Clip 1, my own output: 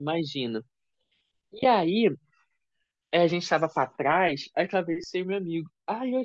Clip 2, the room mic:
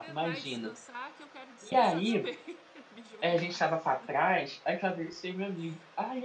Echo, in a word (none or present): present